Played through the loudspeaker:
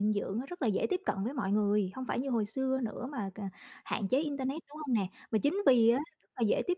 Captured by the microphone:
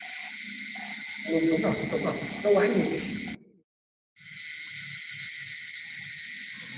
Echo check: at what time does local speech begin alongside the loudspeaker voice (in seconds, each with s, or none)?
1.3 s